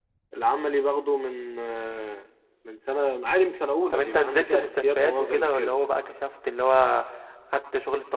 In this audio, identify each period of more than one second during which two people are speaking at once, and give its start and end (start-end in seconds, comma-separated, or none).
3.9-5.7